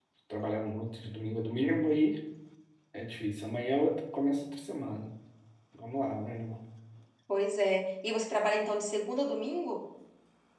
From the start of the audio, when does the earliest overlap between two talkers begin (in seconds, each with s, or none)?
none